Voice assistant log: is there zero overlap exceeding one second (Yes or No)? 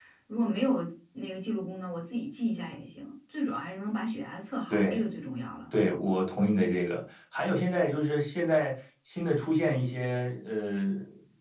Yes